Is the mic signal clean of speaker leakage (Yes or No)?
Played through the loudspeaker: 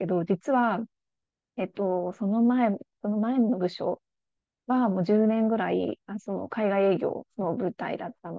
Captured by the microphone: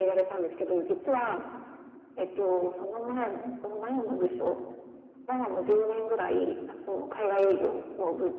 No